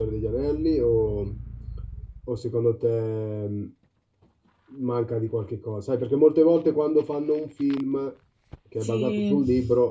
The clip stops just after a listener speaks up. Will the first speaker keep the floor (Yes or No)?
Yes